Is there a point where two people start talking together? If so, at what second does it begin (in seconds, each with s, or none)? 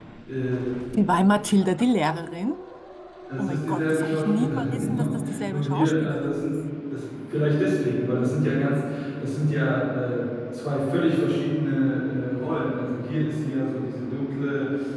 3.4 s